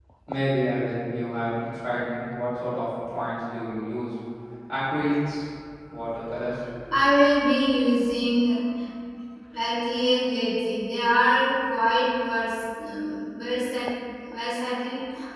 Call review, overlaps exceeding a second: none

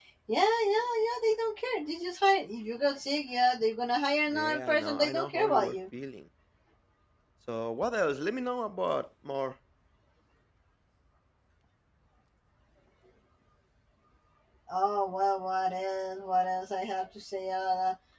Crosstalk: present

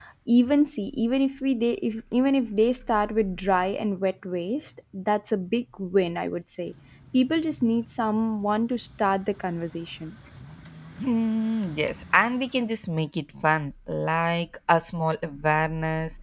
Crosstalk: none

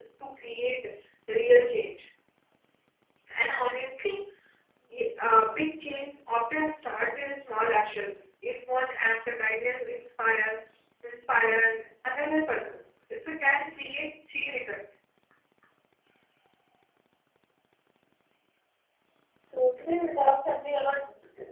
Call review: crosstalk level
none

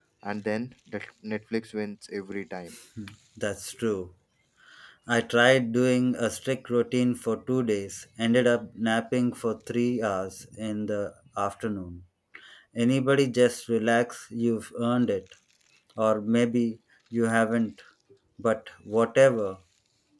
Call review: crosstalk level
none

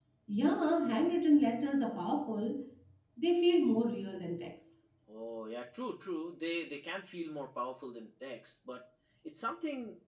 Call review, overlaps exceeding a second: none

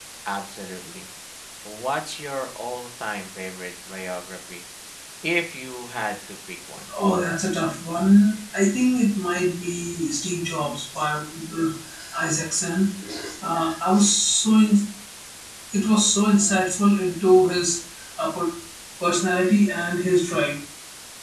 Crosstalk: none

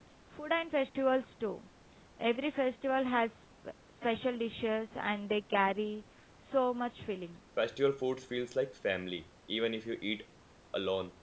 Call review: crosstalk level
none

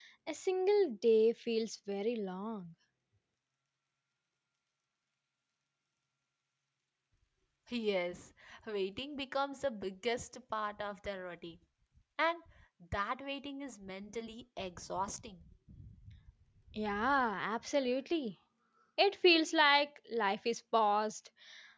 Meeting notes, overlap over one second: none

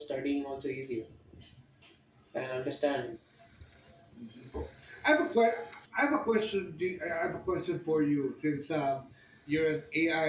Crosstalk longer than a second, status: none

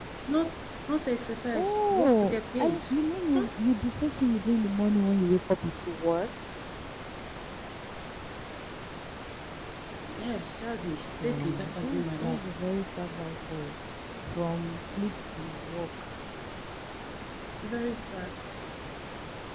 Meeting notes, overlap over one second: present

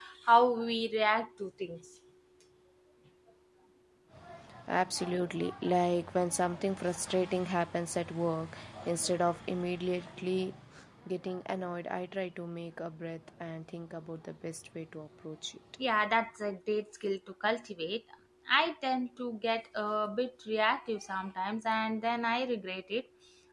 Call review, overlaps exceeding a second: none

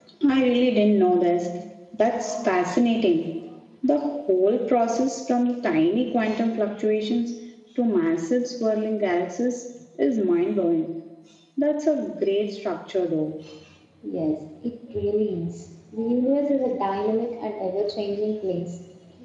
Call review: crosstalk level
none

